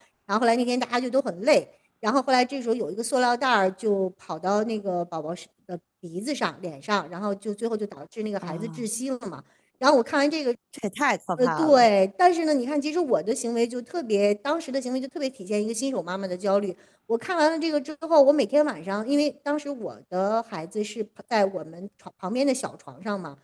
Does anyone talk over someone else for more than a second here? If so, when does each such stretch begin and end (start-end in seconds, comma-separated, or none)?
none